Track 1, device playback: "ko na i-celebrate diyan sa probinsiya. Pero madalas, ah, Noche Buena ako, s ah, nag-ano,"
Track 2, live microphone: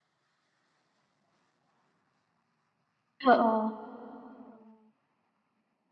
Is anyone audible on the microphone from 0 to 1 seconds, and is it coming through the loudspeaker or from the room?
neither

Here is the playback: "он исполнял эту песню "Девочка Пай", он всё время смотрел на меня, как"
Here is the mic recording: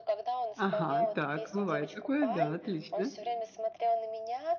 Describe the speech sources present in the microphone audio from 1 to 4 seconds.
both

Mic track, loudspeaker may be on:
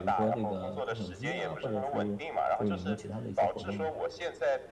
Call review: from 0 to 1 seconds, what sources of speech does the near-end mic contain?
both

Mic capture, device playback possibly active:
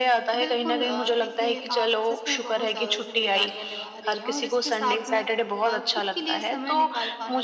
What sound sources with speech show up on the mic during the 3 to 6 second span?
both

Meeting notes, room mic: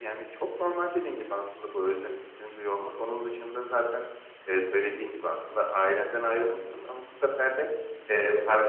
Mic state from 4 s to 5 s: echo only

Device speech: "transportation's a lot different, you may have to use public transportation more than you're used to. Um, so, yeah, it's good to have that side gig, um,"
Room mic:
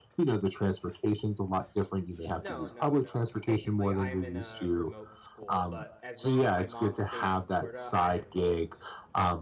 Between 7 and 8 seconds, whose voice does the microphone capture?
both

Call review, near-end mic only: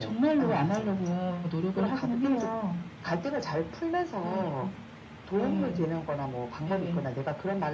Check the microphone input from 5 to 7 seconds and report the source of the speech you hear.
echo only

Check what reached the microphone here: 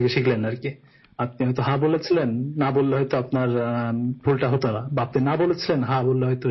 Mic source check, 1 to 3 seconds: echo only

